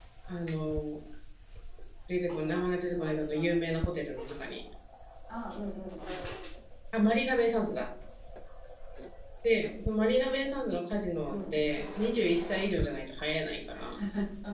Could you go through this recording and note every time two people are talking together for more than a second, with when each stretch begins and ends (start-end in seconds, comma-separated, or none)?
2.3-3.9